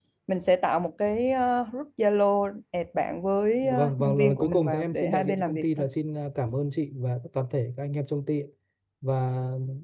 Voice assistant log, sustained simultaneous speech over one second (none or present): present